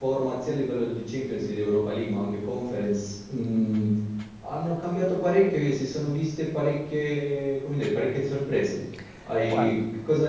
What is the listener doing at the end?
listening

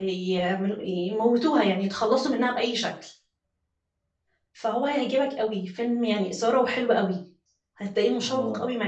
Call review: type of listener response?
listening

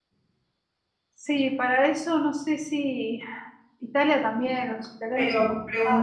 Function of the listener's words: taking over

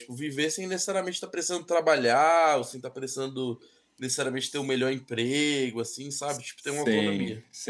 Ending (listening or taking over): taking over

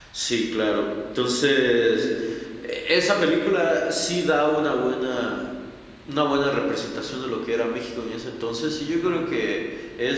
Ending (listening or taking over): listening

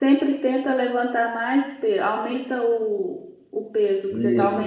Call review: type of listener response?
taking over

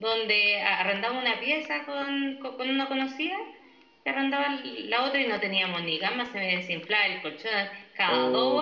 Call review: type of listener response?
taking over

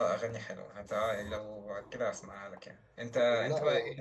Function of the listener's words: listening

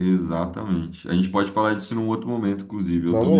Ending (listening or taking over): taking over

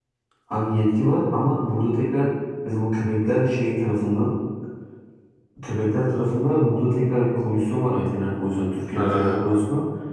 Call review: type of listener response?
listening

